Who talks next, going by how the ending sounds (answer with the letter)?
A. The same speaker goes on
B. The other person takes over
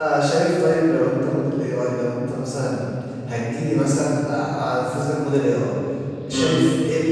A